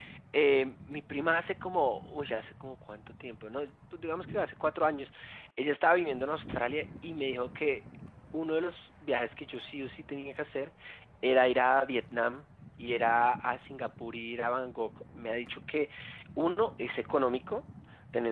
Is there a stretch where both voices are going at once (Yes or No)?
No